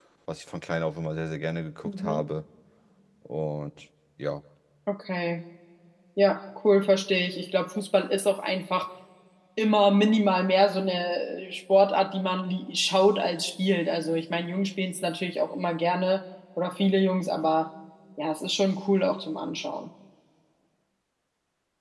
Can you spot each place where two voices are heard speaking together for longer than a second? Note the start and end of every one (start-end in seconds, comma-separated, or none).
none